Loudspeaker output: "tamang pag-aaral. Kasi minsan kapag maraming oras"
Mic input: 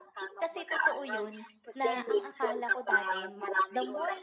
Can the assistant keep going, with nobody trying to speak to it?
No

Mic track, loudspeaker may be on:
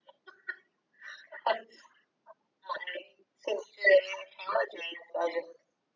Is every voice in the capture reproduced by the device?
Yes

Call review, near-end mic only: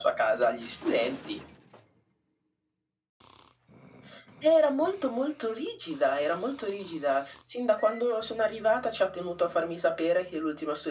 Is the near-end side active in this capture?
No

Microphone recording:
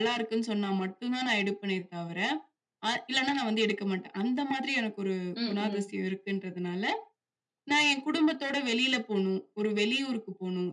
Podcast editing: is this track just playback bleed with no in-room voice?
No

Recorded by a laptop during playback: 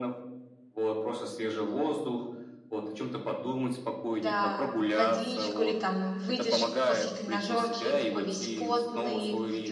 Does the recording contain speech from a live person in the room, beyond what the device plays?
Yes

